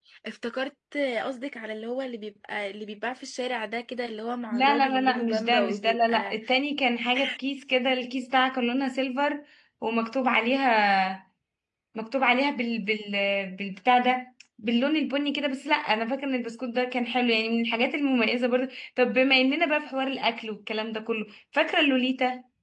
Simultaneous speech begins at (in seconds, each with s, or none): 4.5 s